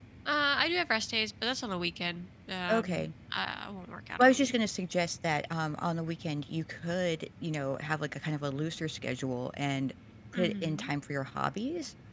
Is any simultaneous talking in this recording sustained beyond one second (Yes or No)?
No